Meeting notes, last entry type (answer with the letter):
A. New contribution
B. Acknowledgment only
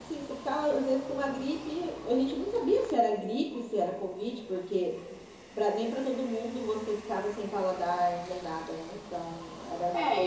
A